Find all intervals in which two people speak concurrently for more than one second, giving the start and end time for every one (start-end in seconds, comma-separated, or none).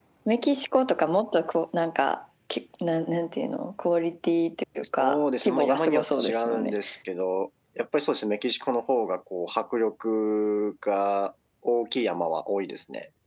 4.8-6.7